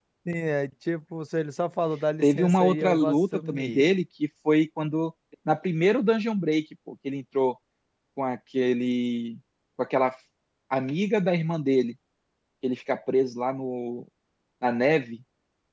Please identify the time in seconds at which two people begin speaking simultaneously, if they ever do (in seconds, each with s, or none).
2.2 s